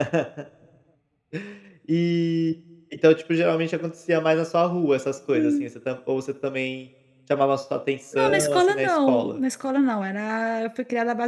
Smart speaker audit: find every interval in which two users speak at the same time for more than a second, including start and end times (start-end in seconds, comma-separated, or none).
8.2-9.4